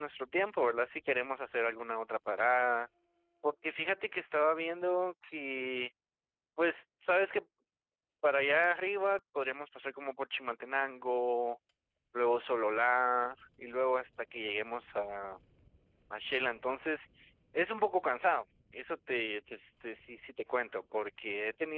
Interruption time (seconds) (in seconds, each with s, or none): none